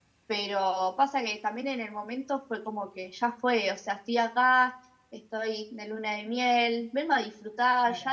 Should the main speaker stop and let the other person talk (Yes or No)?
No